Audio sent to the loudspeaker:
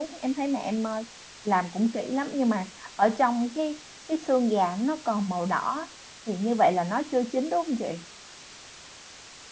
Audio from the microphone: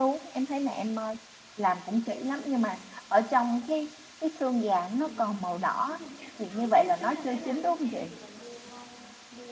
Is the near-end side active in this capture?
Yes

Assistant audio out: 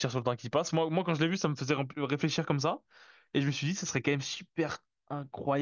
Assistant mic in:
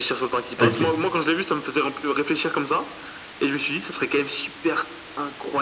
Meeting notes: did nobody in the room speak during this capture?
No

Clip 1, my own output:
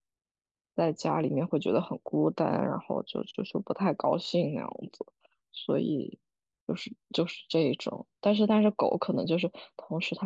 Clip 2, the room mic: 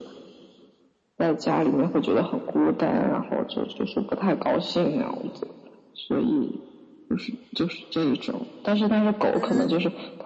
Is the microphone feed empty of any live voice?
No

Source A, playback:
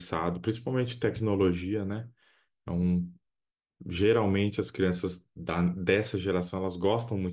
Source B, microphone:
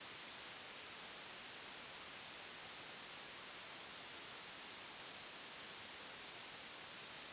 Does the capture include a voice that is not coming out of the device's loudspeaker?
No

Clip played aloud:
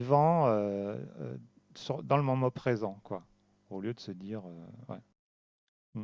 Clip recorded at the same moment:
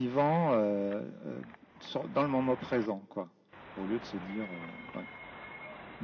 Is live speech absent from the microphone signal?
Yes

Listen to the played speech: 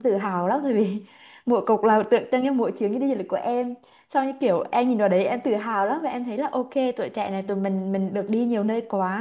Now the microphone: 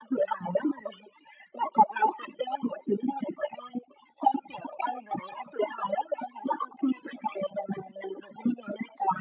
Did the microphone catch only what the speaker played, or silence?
Yes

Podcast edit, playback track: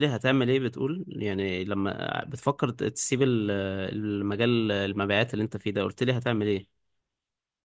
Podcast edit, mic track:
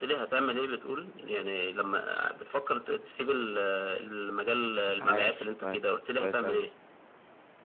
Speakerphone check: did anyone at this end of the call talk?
Yes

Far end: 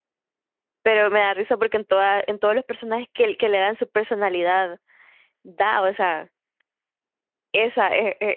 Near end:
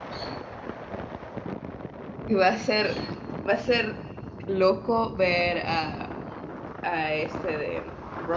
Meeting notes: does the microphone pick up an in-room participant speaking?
Yes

